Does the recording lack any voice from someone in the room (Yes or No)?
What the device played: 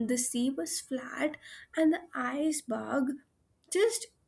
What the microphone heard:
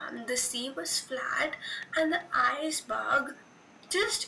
Yes